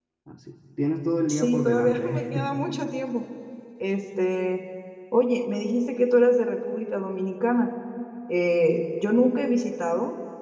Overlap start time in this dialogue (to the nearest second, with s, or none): 1 s